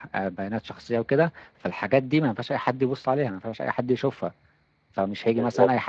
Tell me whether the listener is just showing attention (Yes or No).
Yes